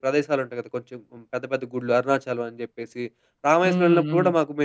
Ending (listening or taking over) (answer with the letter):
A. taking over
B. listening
B